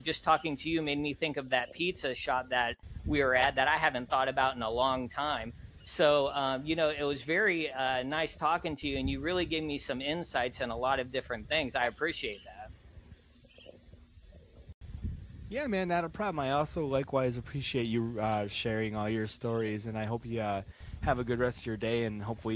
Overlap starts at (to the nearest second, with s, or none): none